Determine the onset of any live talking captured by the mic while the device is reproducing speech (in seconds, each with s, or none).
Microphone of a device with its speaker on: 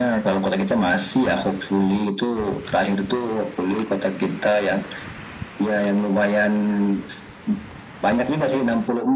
none